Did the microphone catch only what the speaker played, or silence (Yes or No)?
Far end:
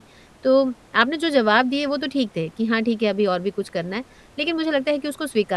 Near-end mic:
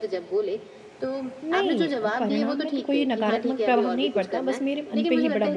No